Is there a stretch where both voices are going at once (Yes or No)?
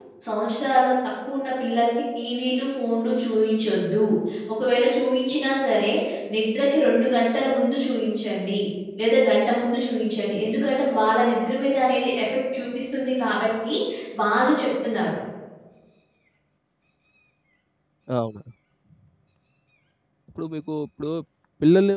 No